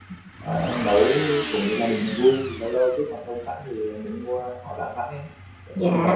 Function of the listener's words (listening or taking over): taking over